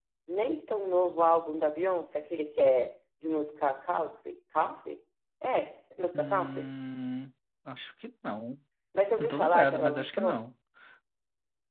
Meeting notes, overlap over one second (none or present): present